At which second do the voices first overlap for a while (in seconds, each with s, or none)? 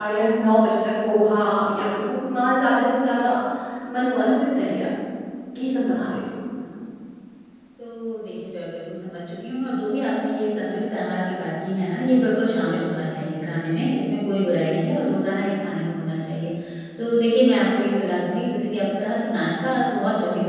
none